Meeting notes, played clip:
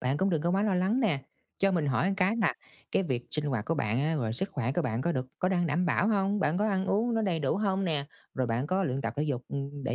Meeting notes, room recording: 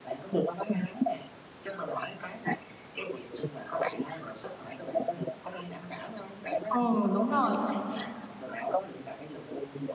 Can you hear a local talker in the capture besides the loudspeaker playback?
Yes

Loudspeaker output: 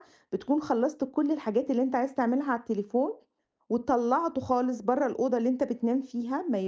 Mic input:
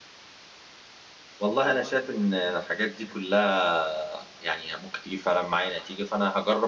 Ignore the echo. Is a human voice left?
Yes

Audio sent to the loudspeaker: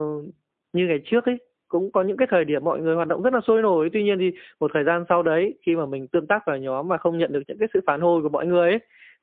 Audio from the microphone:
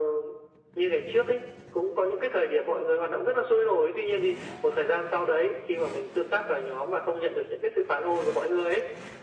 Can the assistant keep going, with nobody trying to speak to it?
Yes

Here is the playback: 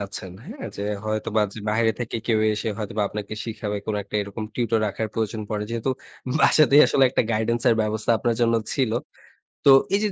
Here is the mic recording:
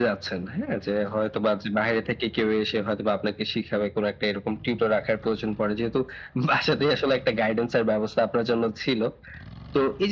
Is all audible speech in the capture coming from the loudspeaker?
Yes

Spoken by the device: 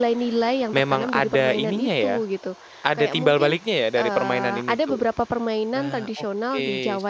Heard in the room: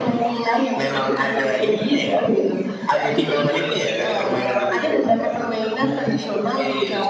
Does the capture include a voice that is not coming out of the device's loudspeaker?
No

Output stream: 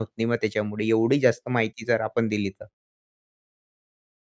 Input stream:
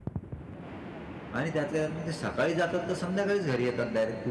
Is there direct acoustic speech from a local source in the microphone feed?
Yes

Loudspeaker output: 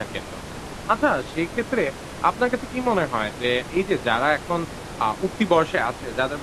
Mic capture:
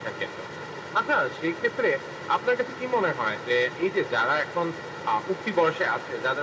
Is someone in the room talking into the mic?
No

